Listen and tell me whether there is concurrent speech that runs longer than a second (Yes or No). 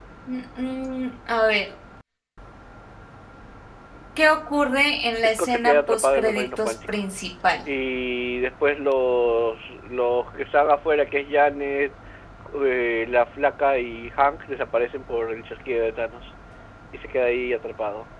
Yes